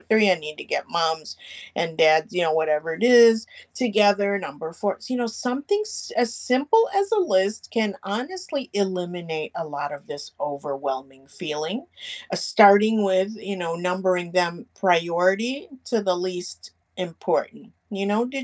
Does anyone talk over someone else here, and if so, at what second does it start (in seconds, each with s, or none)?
none